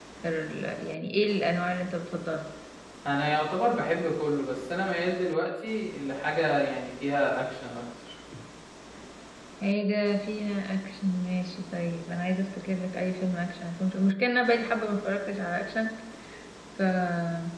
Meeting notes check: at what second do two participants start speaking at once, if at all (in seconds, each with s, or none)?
none